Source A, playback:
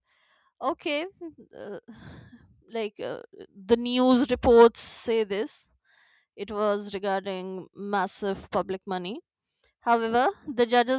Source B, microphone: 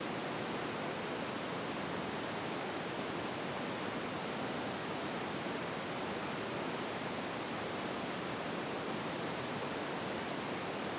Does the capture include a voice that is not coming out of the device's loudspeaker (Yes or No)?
No